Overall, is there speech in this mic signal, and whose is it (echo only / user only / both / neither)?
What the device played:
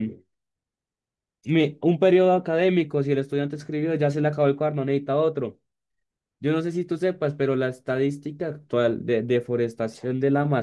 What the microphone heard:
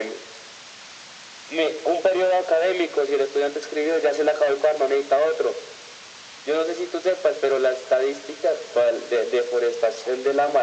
echo only